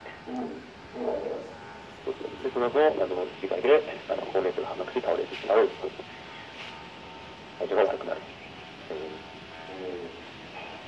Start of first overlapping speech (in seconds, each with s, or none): none